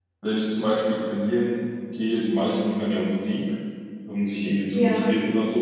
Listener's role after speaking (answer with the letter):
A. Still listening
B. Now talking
A